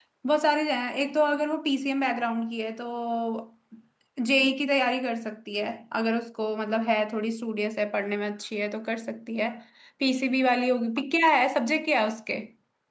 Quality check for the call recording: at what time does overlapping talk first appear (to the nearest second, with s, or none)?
none